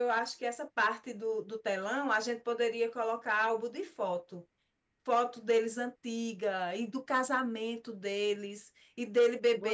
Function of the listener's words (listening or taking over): listening